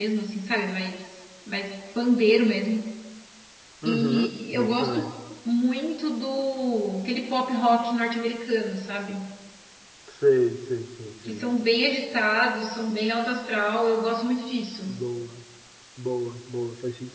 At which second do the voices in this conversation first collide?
3.9 s

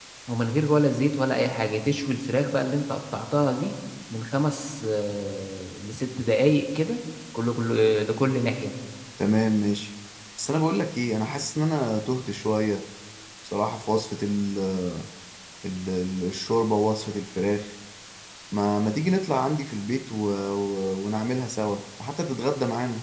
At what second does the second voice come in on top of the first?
none

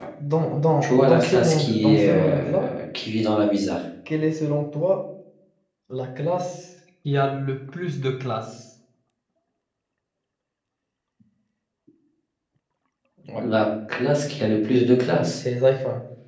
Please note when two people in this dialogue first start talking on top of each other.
0.8 s

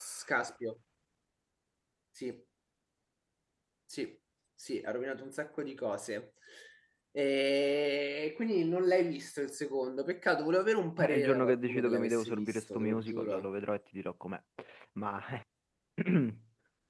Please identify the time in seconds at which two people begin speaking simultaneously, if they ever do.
11.0 s

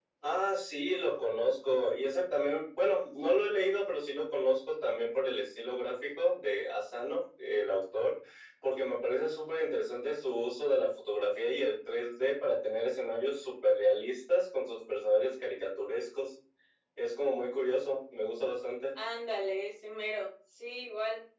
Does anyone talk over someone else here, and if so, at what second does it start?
none

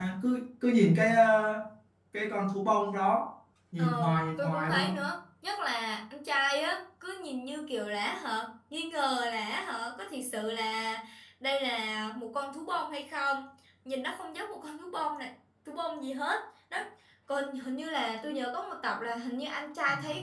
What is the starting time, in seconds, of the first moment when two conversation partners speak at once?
3.8 s

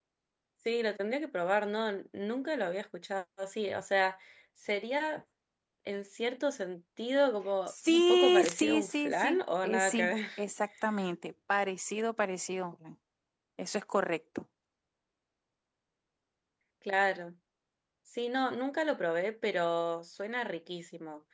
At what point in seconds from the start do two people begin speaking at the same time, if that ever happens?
7.7 s

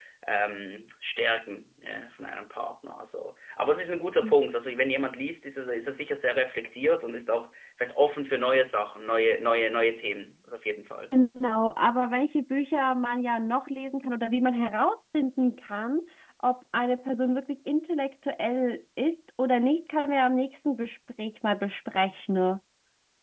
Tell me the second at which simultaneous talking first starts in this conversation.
none

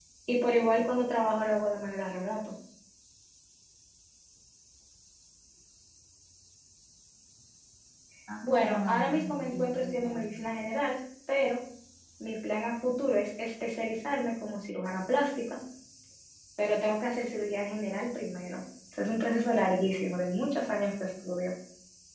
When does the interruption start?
8.6 s

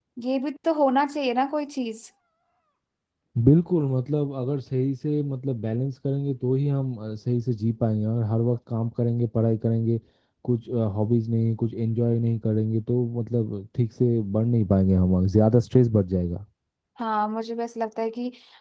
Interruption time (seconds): none

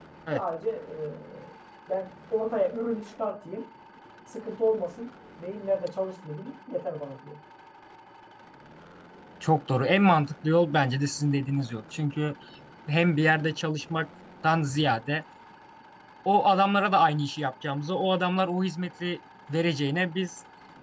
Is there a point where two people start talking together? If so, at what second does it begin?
none

